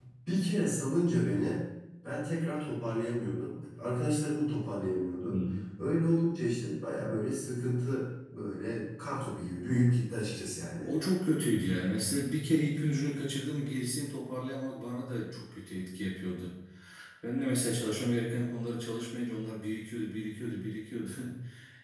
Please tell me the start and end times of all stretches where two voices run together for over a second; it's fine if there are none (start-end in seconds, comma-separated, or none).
none